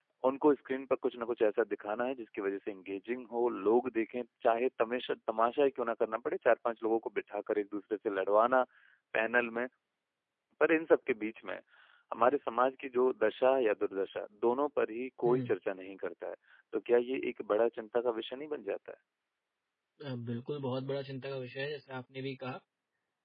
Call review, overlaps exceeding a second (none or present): none